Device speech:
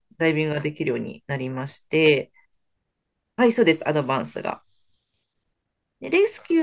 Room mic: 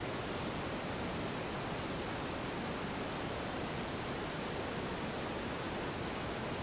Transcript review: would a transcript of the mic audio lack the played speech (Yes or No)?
Yes